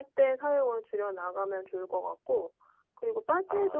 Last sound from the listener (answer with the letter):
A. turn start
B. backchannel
B